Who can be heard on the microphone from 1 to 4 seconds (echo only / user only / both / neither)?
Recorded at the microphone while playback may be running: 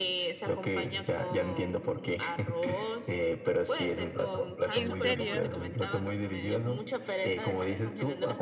echo only